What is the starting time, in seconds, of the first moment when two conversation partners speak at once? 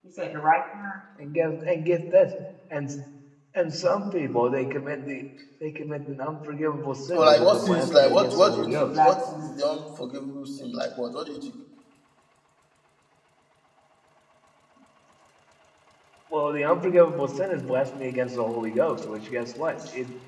7.1 s

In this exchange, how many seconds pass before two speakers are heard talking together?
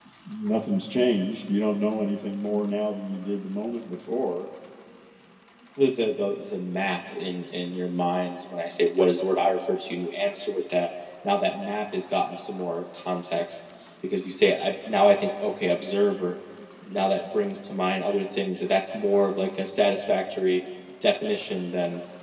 none

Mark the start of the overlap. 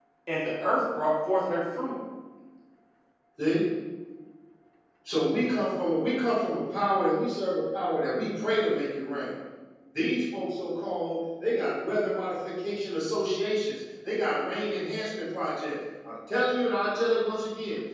none

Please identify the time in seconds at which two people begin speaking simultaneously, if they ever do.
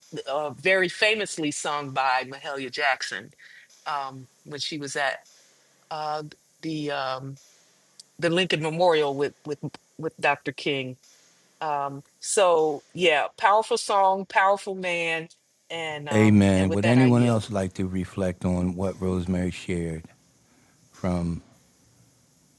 16.1 s

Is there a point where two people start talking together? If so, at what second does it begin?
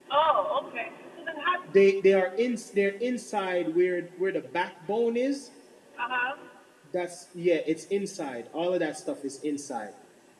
none

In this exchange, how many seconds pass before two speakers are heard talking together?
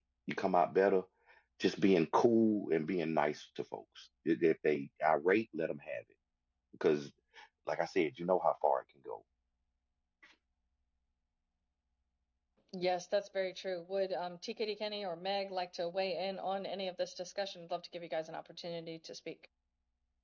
none

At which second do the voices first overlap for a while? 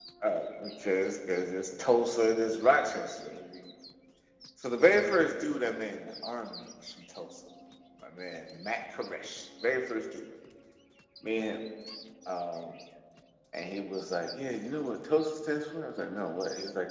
none

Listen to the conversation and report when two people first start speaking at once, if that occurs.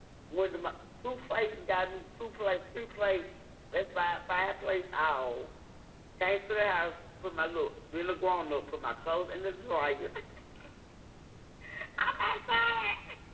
none

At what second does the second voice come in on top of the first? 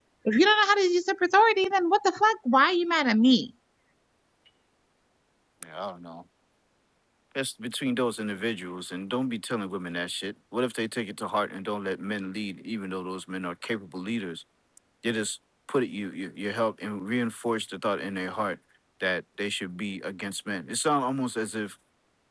none

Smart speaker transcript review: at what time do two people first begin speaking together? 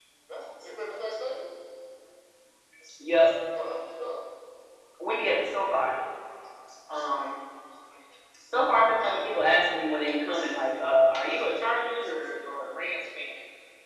none

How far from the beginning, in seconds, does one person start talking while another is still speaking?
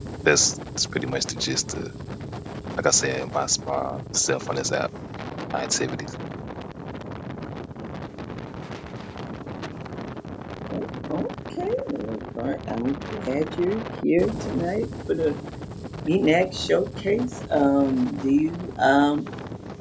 none

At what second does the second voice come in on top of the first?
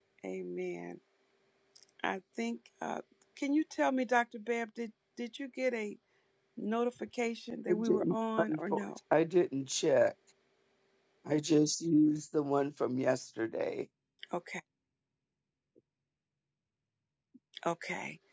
7.7 s

